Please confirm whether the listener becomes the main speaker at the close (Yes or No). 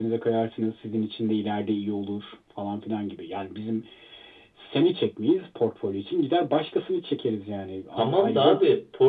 Yes